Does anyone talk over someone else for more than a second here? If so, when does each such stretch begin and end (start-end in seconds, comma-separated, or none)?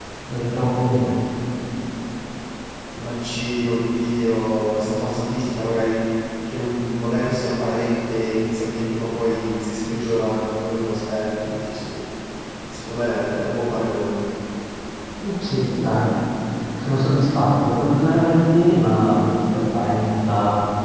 none